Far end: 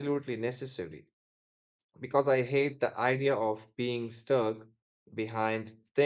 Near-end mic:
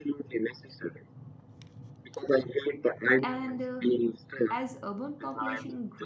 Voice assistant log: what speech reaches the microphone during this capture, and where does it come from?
both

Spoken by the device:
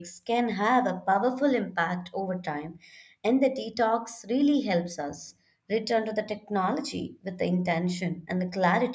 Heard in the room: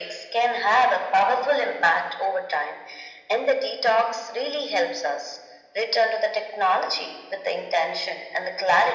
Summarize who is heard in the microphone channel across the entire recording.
echo only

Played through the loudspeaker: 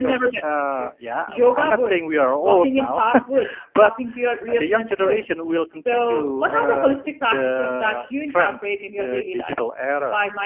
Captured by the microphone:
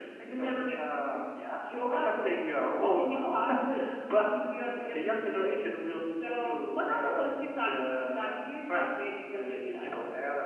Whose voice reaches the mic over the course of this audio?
echo only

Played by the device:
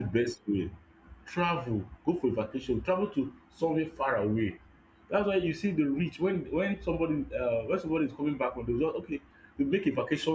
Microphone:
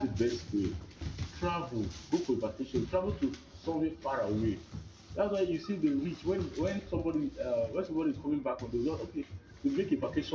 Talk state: echo only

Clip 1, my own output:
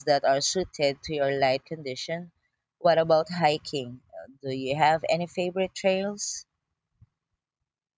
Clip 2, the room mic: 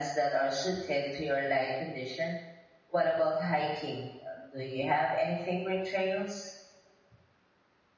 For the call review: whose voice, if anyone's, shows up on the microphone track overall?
echo only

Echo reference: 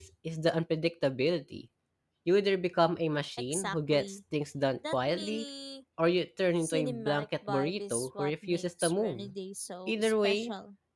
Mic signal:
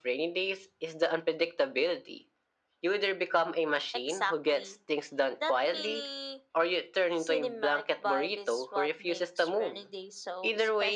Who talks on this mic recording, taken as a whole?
echo only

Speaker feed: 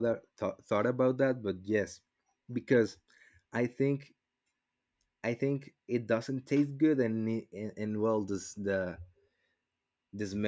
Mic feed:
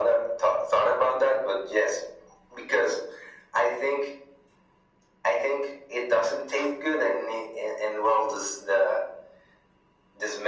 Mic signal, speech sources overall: echo only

